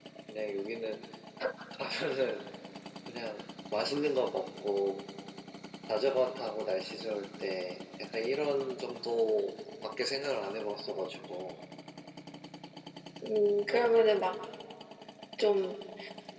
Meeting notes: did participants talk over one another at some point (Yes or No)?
No